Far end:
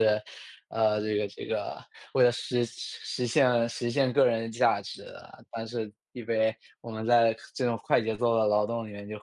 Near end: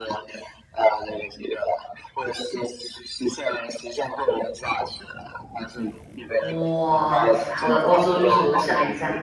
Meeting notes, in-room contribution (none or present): present